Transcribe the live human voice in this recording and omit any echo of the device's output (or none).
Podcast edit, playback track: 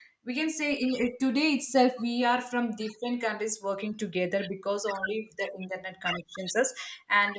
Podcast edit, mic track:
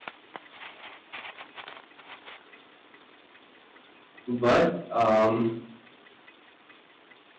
but um,